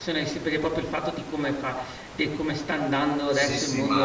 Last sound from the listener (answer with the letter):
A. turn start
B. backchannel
A